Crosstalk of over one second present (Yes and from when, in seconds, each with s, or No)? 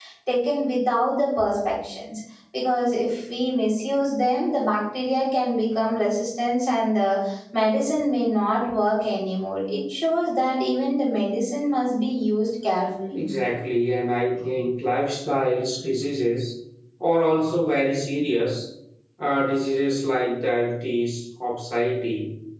No